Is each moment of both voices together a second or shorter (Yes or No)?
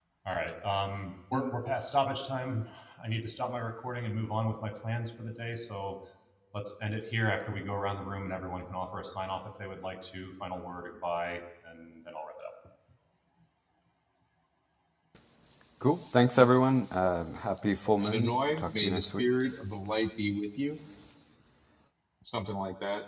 No